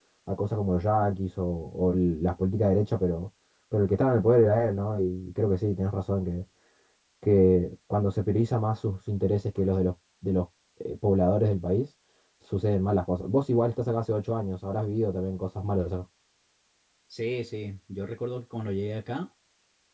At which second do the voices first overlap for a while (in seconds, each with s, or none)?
none